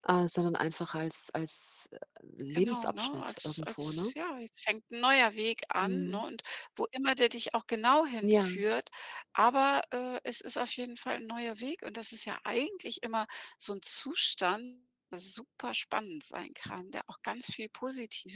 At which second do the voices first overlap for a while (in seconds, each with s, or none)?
2.5 s